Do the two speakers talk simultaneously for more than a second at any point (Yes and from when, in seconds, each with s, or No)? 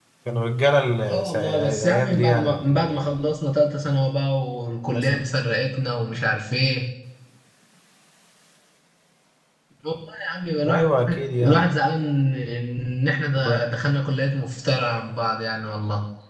Yes, from 1.1 s